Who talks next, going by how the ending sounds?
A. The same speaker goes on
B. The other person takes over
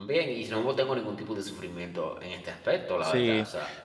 B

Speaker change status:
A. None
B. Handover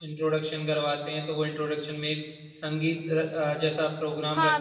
B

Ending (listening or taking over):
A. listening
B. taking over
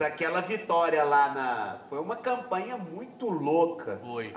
A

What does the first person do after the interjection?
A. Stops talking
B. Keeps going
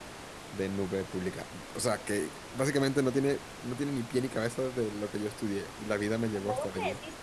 A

